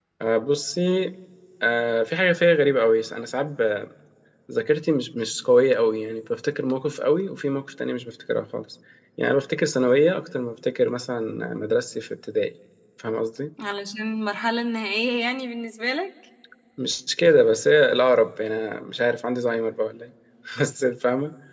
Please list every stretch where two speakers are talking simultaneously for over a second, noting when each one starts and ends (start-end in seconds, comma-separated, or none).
none